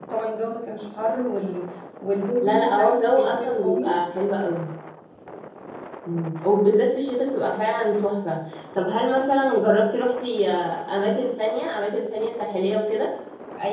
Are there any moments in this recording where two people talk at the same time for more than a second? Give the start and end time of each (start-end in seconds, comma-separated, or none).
2.4-4.0